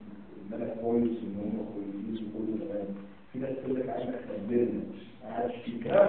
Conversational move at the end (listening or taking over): taking over